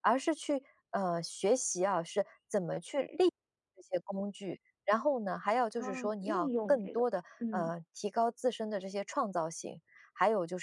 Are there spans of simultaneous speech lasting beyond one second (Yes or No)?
Yes